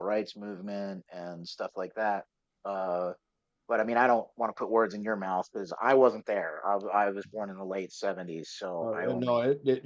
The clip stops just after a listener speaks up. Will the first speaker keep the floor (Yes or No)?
No